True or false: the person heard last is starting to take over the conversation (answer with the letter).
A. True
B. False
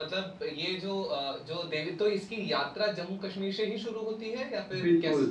A